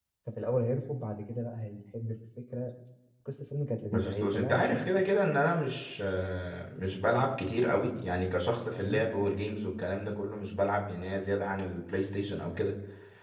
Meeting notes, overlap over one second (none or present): present